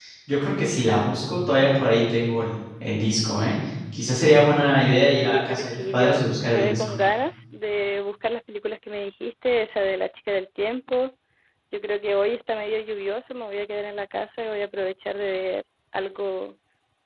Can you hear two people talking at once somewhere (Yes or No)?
Yes